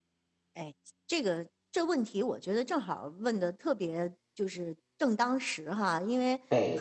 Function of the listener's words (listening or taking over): listening